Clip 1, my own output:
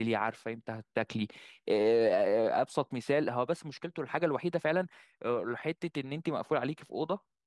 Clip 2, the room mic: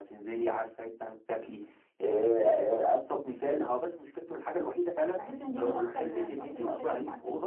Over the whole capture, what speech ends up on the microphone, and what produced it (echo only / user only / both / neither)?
both